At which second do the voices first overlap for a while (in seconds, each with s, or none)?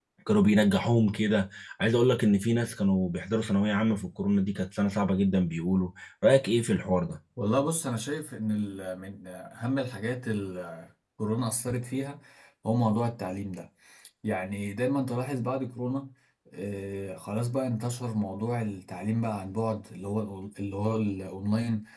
none